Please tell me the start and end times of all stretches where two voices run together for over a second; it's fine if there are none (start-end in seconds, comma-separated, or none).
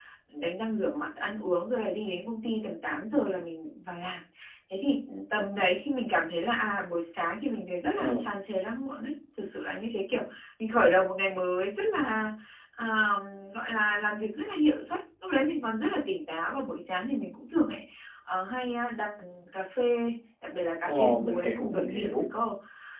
20.8-22.1